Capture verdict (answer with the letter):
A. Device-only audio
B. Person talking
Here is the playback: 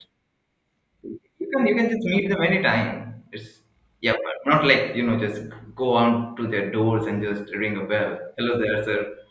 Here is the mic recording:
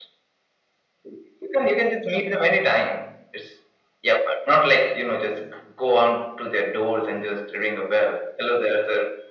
A